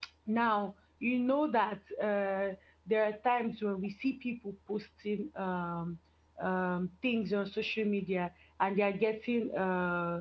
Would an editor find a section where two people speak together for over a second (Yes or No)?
No